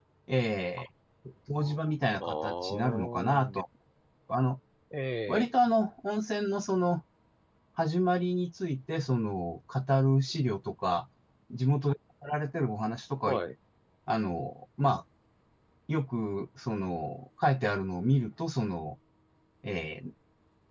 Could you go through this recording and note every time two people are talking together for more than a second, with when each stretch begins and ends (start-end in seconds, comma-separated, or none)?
2.1-3.6